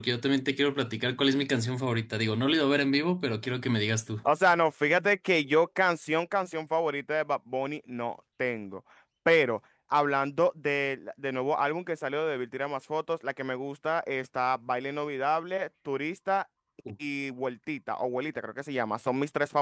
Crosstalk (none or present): none